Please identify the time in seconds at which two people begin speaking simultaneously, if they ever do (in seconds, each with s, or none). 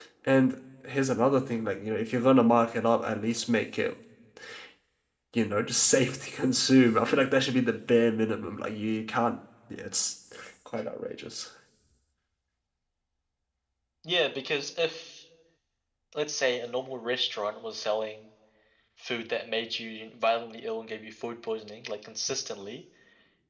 none